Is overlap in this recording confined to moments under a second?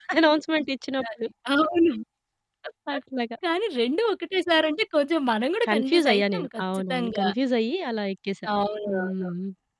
No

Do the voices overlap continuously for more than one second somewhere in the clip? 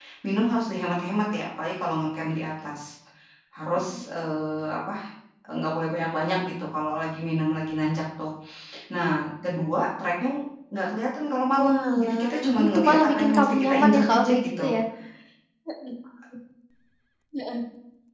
Yes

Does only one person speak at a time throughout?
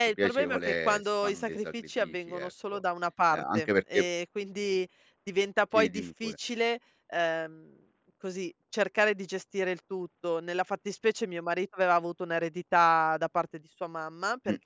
No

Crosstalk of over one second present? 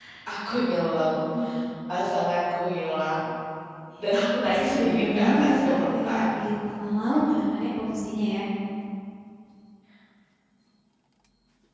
Yes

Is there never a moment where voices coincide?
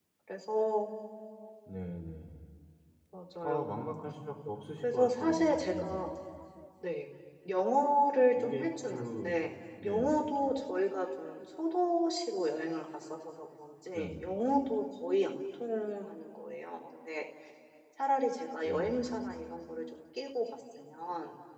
No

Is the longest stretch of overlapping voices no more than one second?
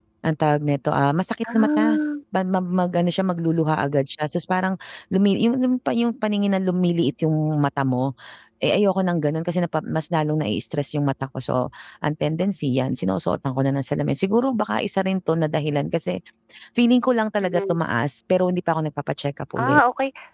Yes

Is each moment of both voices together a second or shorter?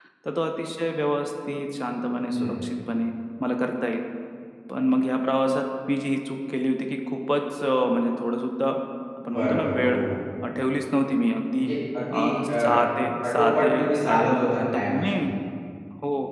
No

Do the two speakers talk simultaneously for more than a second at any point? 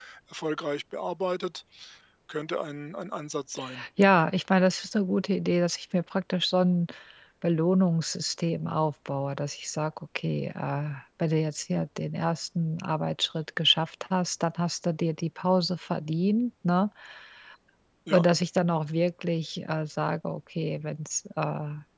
No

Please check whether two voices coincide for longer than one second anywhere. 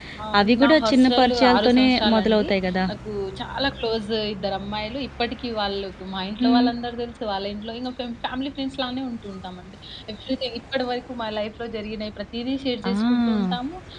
Yes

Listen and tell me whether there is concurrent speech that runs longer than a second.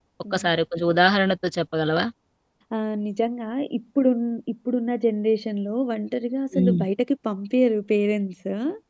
No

